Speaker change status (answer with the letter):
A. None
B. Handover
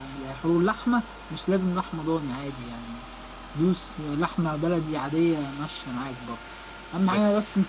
A